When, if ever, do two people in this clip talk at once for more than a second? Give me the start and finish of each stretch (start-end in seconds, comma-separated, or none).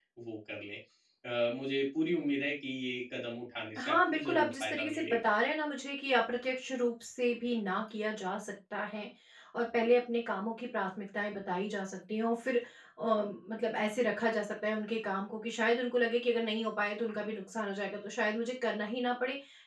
3.8-5.3